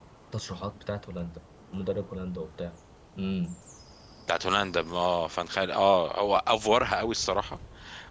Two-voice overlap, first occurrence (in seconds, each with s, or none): none